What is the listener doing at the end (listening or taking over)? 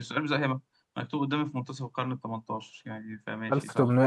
taking over